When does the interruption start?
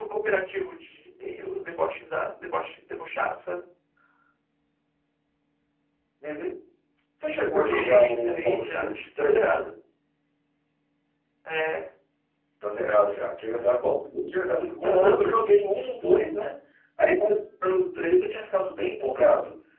7.5 s

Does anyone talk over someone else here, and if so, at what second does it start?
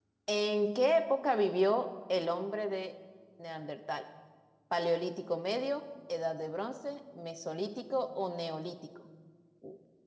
none

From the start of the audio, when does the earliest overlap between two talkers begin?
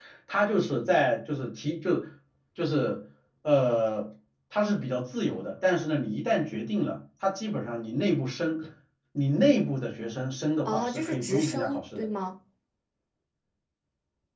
10.7 s

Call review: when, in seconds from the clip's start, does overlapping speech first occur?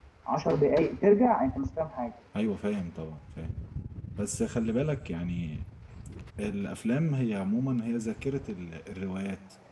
none

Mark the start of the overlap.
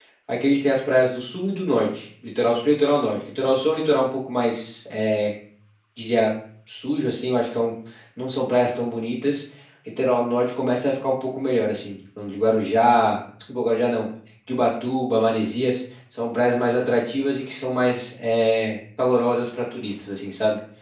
none

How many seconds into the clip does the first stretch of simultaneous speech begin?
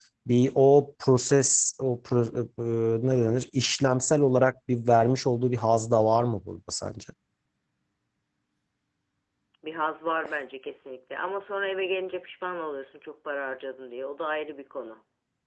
none

